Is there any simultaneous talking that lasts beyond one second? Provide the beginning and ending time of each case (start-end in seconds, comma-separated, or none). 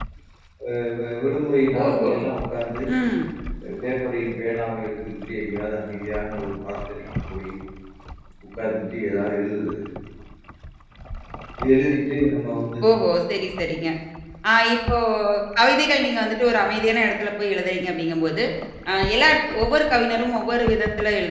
none